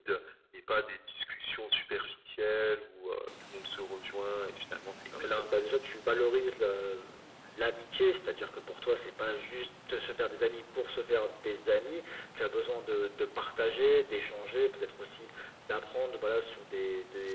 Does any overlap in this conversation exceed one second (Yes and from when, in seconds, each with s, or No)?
No